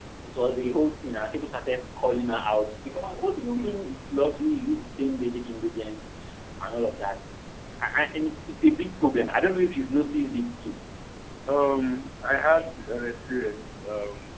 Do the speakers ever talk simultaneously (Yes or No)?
No